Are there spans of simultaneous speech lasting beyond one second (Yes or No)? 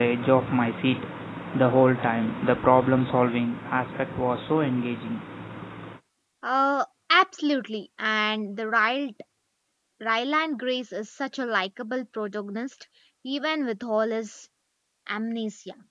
No